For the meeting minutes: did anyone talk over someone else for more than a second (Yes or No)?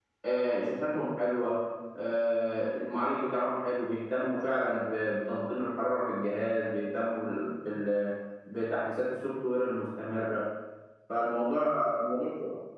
No